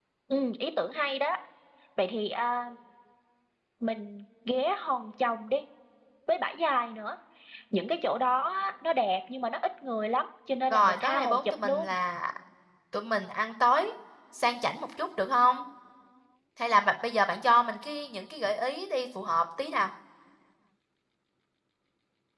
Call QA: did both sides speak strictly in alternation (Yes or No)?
No